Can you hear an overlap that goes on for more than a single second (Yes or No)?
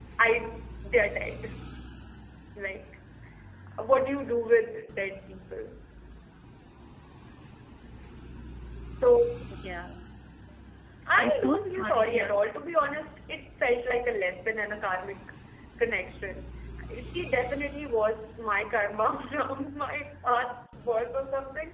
Yes